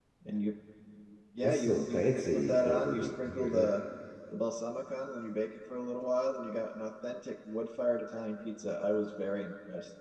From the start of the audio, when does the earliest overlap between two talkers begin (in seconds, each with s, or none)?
1.4 s